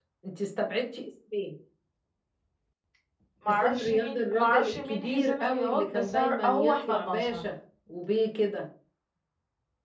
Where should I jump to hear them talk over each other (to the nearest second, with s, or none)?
3 s